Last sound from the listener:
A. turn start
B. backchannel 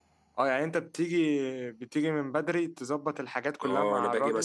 A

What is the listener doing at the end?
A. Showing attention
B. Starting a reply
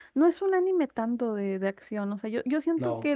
A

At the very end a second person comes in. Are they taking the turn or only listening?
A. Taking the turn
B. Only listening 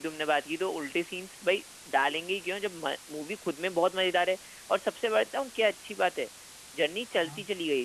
B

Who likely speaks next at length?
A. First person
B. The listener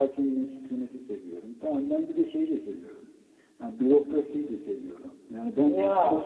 A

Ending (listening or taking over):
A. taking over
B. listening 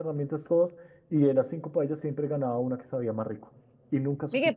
A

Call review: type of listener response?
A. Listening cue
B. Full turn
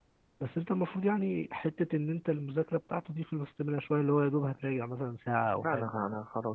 B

